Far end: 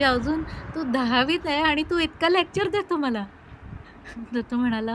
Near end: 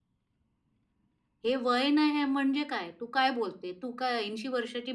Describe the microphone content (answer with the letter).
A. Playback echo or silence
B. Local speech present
B